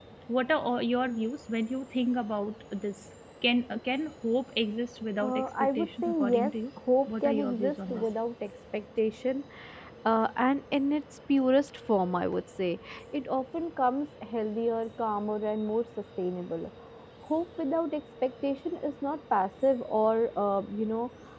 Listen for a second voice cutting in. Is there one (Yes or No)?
Yes